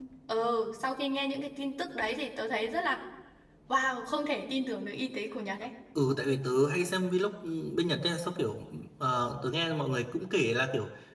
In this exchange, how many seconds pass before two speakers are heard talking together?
none

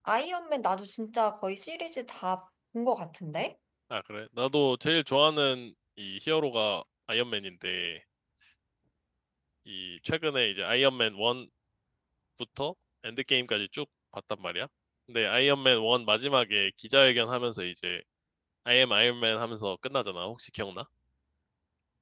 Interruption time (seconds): none

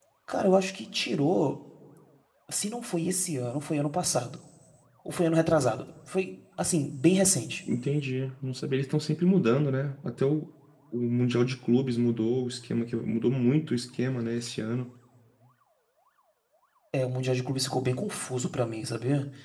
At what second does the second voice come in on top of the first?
none

